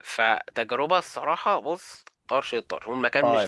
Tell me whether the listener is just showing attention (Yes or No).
No